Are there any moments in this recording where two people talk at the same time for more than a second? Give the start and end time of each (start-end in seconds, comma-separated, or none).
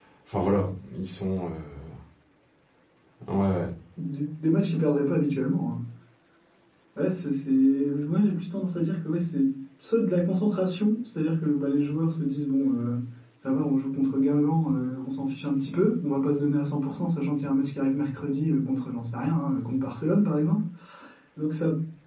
none